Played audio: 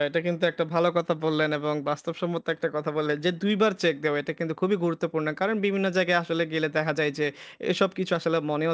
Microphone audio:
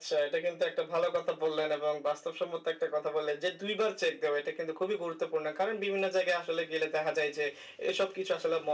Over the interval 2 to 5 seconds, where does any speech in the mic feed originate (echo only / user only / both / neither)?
echo only